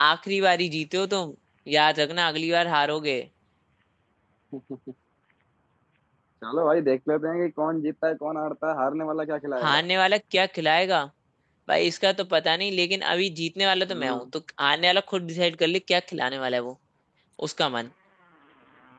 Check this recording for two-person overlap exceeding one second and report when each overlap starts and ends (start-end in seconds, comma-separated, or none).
none